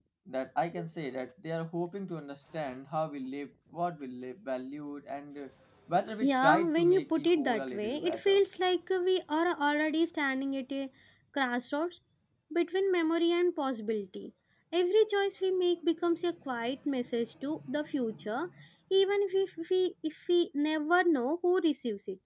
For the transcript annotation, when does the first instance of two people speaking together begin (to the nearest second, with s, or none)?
6 s